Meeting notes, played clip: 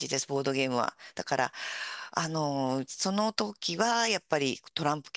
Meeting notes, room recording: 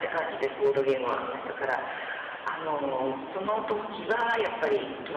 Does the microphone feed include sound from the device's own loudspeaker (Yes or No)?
Yes